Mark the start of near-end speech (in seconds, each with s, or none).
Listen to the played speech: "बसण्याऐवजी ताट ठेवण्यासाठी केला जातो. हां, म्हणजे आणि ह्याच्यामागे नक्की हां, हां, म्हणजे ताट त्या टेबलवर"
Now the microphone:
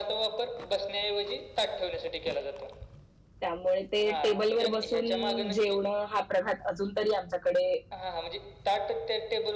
3.4 s